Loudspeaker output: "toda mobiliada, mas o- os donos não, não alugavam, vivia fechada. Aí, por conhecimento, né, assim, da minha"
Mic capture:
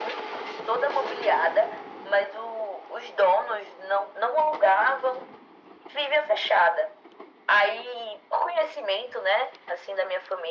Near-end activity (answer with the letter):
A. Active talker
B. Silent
B